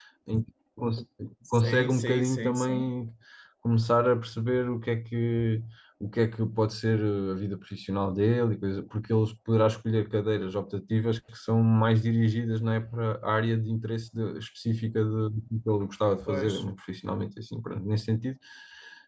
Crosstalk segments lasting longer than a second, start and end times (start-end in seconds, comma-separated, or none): 1.5-2.9